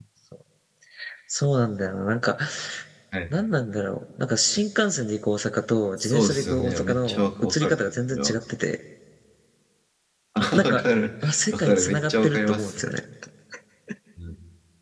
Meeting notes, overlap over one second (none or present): present